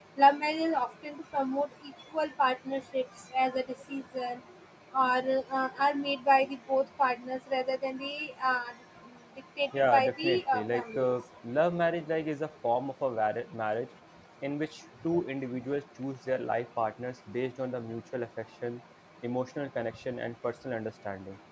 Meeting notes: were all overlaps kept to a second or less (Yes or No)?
No